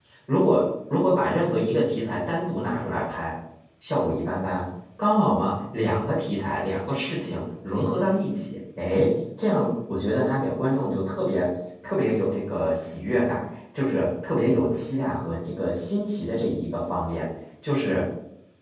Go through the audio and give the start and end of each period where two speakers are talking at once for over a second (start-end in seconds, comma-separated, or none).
none